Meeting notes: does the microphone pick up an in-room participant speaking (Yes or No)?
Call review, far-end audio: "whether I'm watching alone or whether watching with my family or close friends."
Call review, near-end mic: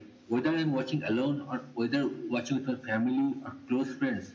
No